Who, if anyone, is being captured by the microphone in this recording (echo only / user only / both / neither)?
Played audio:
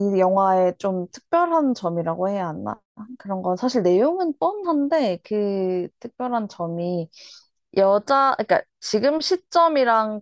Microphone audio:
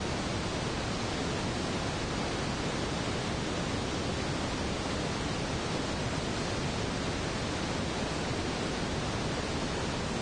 neither